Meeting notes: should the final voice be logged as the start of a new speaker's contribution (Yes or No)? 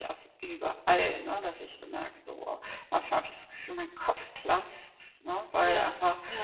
No